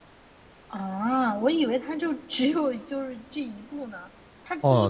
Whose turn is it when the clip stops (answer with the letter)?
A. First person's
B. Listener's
B